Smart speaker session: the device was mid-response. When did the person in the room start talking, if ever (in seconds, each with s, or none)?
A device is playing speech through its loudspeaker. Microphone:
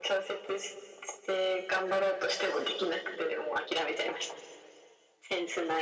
none